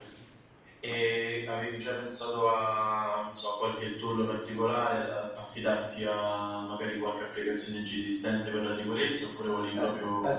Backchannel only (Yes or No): No